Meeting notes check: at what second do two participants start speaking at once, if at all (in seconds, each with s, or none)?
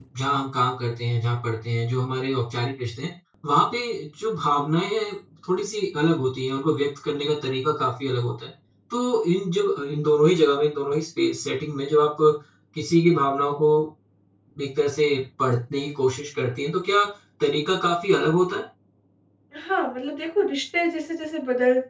none